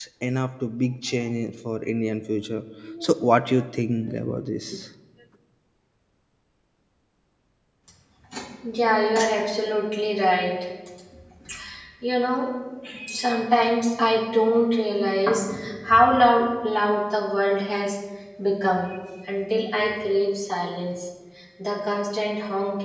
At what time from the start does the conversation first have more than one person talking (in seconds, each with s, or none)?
none